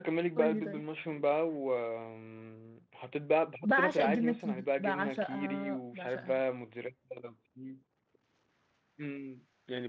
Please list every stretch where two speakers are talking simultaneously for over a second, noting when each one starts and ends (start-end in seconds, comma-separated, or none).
3.6-6.4